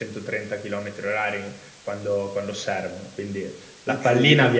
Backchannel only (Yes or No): Yes